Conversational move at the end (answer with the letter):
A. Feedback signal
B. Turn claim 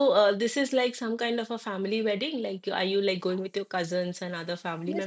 B